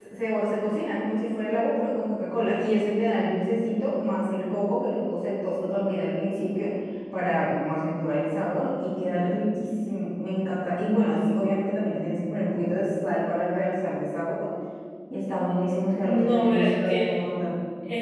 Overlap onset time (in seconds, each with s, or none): 16.0 s